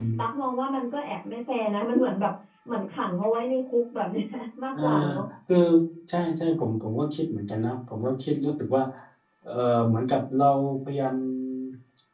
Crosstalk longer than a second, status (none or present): none